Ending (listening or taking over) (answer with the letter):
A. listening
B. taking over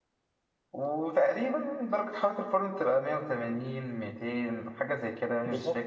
B